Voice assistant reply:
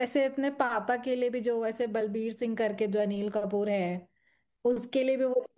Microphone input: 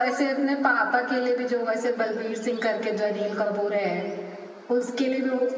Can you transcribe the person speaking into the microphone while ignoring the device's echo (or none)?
none